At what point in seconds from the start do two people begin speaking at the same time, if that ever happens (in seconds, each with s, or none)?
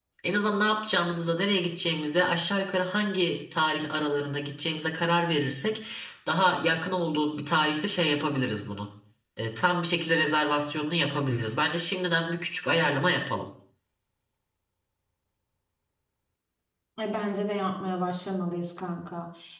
none